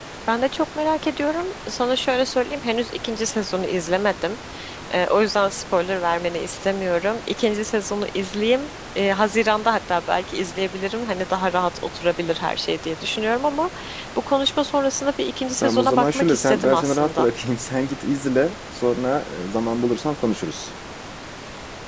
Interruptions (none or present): present